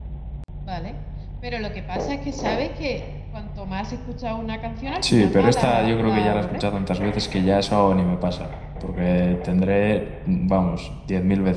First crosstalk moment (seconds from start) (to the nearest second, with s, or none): 5 s